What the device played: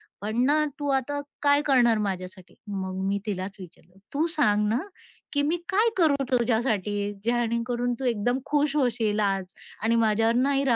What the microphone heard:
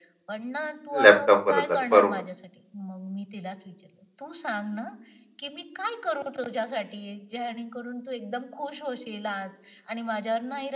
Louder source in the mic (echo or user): user